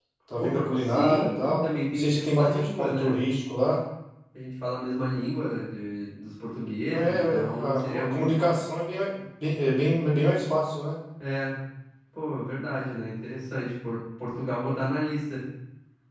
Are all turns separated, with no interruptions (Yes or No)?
No